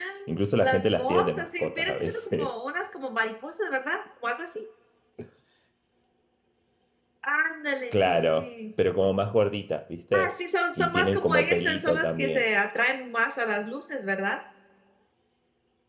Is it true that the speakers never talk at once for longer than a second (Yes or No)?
No